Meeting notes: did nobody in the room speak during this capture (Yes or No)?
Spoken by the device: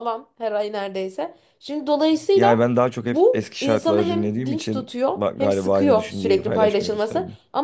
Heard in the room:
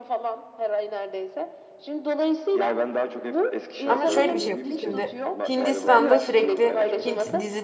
No